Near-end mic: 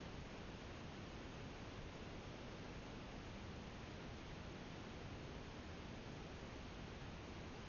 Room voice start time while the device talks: none

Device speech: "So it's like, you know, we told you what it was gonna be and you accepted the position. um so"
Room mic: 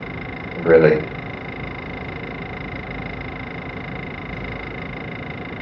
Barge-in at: 0.5 s

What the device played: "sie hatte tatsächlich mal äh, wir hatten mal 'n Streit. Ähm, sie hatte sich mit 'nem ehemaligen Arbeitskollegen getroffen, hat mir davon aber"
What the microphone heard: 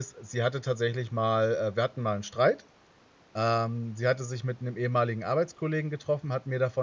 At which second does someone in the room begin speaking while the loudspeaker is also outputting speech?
none

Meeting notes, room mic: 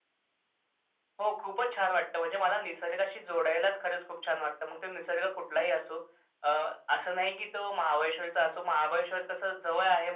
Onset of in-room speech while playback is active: none

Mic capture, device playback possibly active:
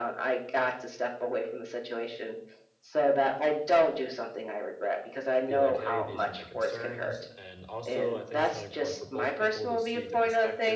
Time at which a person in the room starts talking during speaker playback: 5.5 s

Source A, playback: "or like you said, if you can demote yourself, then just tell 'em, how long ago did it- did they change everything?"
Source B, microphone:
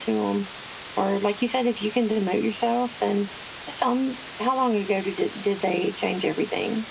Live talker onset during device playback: none

